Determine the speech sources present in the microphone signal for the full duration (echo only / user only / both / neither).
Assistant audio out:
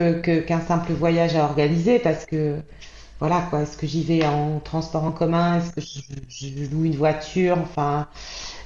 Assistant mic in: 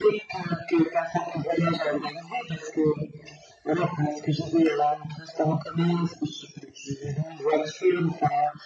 echo only